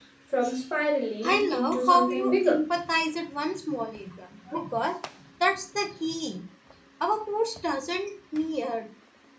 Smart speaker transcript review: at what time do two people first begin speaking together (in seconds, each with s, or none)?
1.2 s